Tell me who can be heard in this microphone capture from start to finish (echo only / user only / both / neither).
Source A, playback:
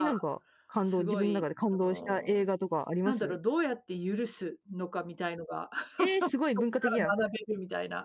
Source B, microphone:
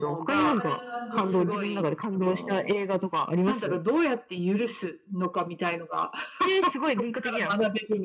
both